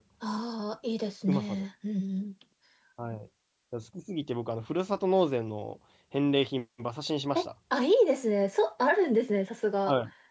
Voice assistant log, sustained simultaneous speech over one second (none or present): none